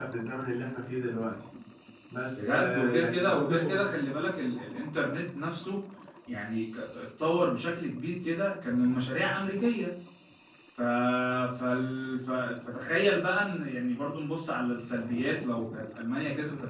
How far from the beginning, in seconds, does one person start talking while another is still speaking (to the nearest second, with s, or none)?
2 s